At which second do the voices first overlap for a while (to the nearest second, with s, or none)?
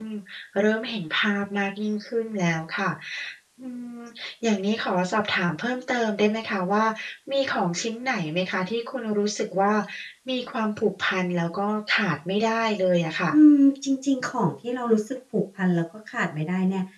none